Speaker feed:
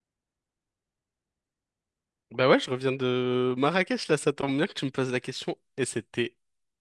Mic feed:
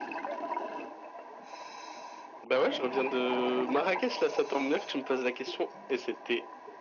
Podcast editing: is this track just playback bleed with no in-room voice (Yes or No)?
Yes